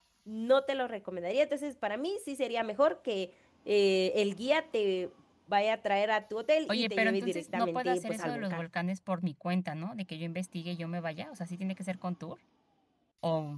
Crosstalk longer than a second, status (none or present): present